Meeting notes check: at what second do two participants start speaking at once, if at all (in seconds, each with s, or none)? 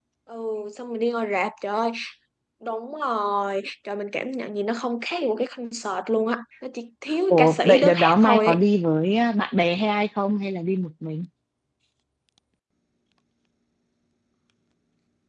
7.3 s